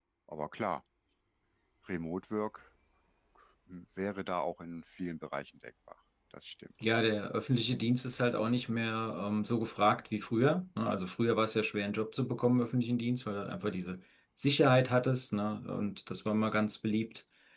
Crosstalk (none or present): none